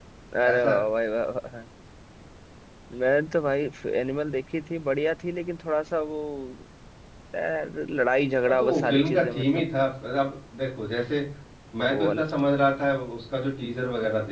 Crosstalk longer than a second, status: present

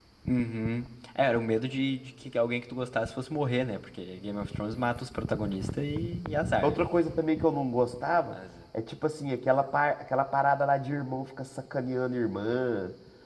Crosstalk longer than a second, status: none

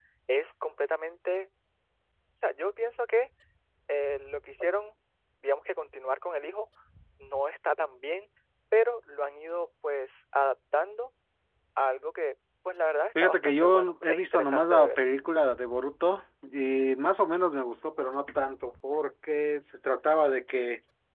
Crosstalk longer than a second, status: present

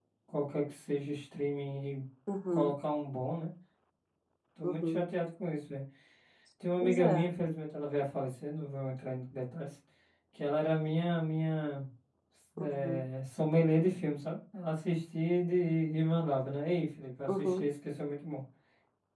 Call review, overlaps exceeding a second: none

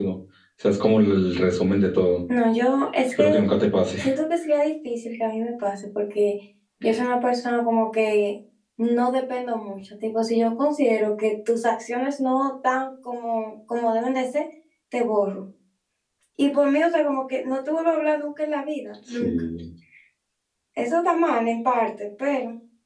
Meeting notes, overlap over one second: none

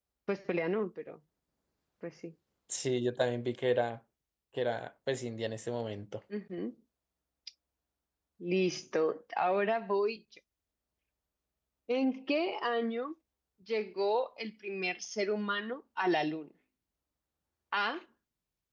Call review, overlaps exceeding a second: none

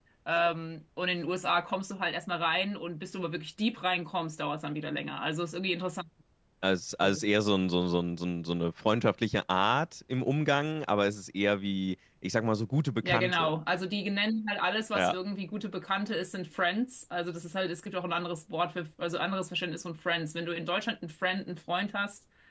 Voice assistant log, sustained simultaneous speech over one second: none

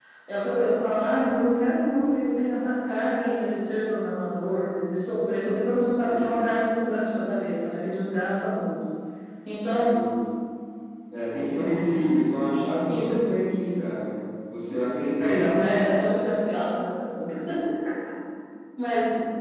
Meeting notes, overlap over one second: none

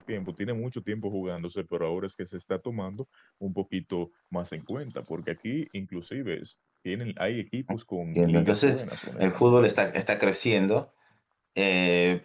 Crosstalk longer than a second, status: present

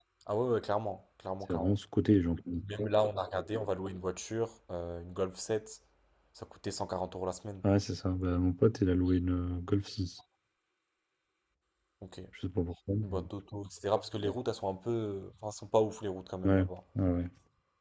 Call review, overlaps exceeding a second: none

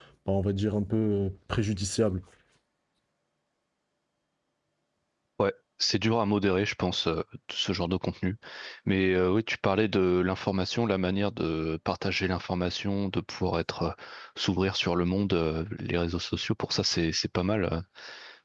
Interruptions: none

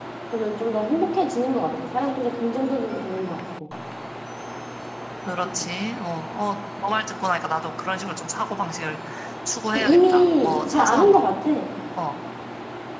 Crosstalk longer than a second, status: present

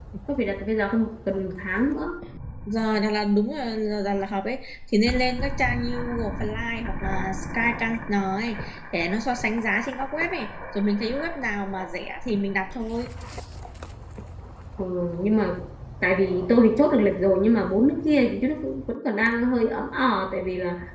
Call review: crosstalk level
none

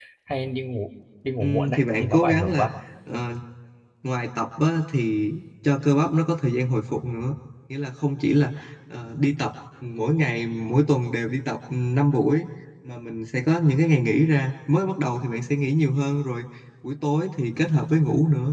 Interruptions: present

